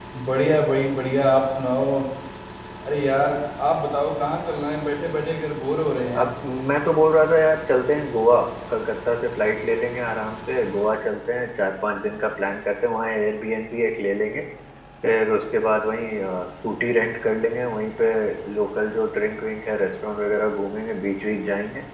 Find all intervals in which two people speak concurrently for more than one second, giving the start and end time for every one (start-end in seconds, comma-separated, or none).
none